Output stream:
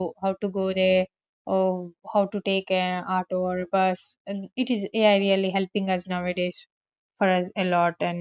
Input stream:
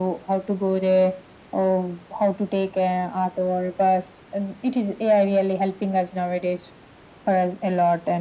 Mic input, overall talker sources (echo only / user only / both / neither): echo only